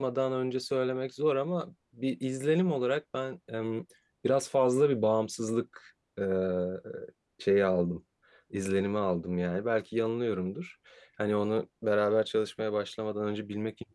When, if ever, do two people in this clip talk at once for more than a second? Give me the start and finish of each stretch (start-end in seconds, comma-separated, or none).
none